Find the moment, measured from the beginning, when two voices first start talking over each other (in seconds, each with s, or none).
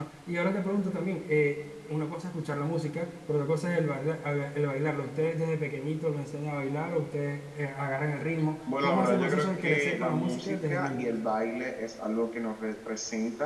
8.7 s